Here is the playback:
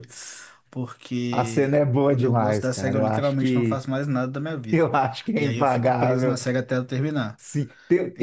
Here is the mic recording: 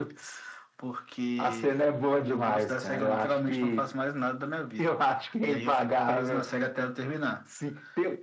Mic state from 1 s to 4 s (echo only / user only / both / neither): echo only